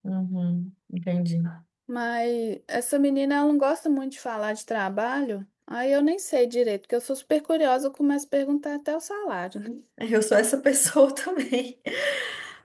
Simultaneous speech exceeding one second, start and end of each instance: none

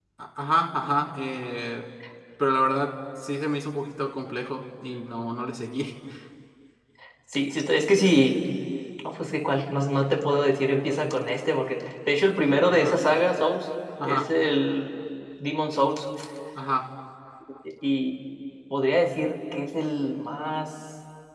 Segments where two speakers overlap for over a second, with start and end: none

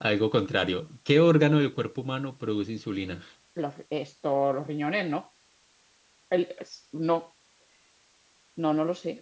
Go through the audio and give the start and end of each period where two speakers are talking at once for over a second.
none

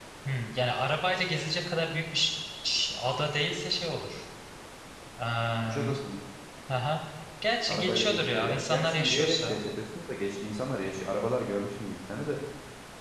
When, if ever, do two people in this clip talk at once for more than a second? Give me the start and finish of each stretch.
7.7-9.6

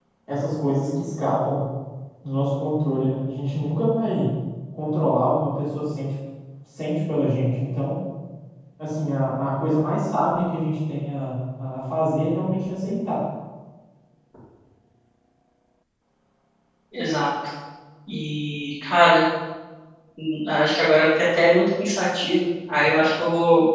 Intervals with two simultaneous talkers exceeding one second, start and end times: none

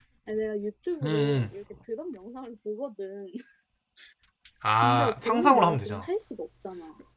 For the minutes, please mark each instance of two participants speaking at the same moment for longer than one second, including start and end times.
4.8-6.1

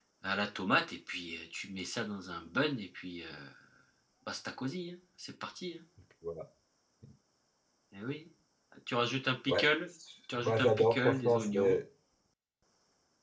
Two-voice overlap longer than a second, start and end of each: 10.4-11.8

